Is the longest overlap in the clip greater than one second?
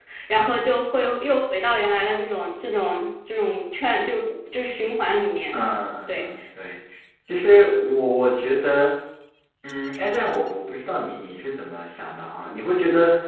No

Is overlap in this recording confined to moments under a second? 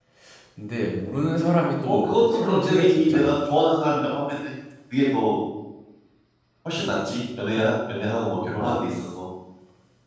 No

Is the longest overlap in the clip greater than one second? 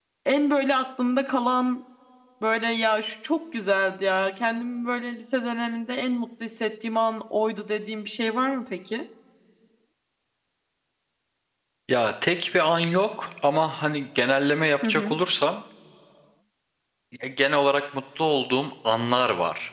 No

